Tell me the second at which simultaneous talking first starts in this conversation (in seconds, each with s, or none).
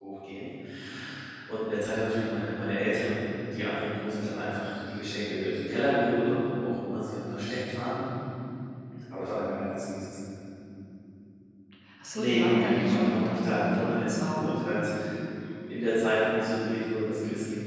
12.1 s